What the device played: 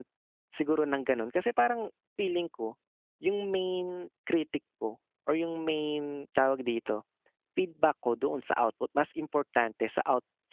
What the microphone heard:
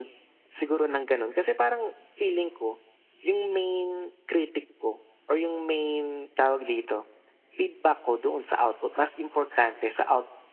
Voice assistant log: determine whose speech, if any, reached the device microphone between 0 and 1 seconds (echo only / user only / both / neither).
echo only